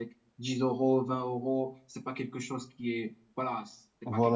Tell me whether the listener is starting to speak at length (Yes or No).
Yes